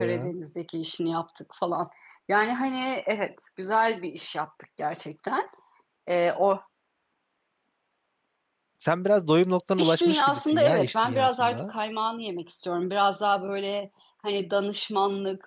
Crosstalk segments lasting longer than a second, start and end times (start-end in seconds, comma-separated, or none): 9.8-11.7